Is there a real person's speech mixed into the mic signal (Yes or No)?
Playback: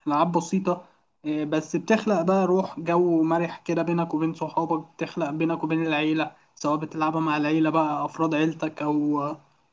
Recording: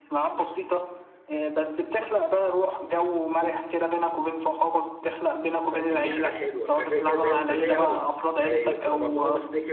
Yes